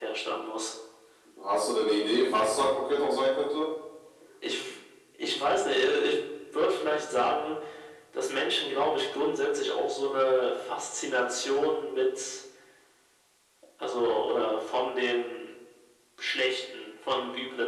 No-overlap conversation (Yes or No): Yes